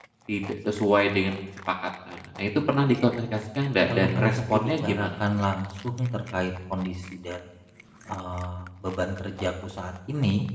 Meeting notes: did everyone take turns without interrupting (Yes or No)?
No